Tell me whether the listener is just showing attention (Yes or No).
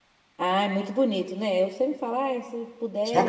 No